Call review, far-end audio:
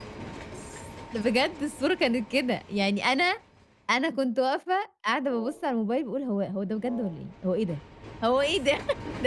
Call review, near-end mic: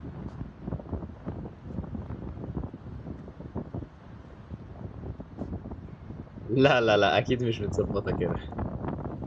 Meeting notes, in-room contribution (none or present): present